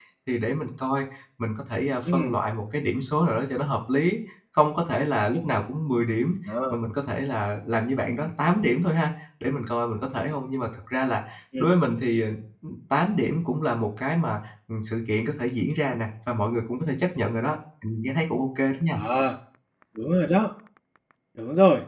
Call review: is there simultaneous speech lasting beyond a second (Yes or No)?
No